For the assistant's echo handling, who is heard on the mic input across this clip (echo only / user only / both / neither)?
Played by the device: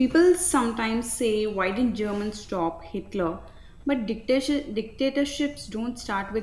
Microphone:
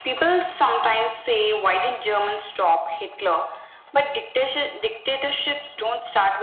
echo only